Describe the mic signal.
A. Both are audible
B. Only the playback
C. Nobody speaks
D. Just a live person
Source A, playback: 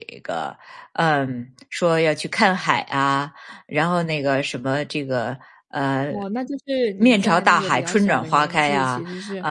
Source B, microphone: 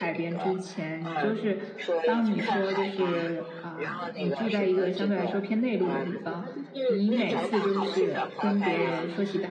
A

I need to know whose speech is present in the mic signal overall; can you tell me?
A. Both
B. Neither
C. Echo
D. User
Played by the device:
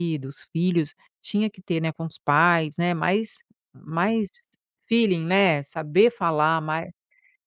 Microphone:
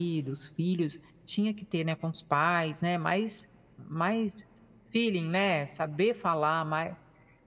C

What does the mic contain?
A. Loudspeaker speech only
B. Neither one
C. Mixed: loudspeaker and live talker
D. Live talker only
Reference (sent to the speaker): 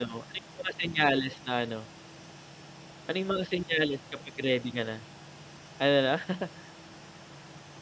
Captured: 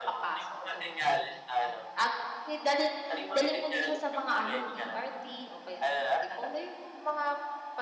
C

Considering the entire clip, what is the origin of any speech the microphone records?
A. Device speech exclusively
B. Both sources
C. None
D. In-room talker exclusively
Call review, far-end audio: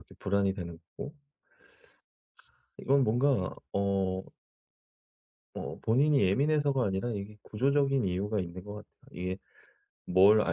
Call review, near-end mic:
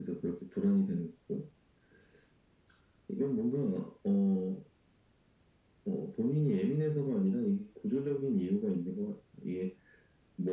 A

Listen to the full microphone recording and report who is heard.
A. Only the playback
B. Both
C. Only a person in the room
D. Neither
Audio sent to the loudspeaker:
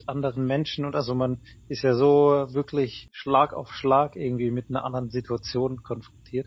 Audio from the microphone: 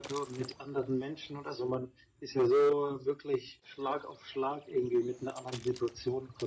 A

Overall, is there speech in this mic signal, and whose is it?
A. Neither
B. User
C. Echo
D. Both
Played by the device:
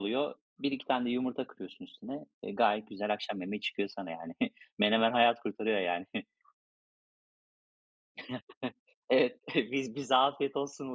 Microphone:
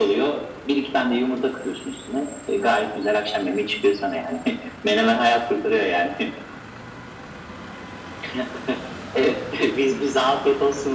C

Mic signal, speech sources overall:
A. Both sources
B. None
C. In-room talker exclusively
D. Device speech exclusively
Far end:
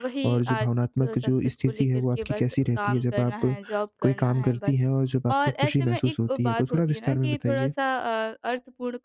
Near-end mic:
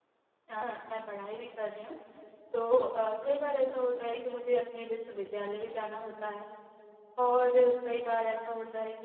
C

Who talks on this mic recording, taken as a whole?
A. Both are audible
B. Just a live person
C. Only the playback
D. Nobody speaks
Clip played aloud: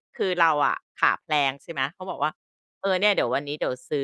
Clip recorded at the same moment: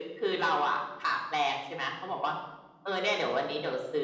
C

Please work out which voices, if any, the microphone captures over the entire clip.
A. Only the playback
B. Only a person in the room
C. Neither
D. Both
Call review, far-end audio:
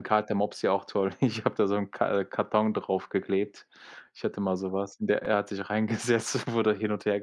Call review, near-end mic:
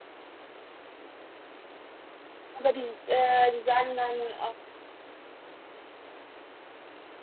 B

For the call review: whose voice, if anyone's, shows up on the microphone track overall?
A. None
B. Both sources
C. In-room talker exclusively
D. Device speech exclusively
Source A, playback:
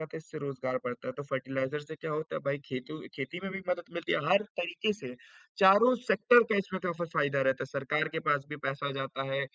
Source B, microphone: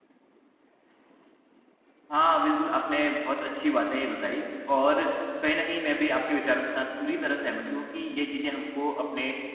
C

